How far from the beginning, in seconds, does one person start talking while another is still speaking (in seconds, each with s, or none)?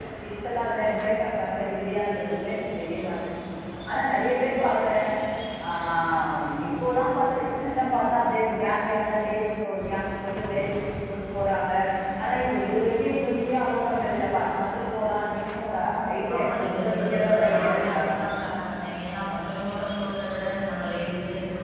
16.4 s